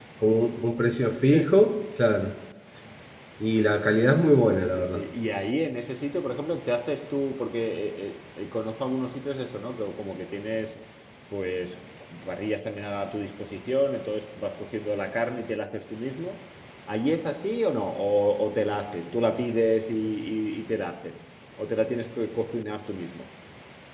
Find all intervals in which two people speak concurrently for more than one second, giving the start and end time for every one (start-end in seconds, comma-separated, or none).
none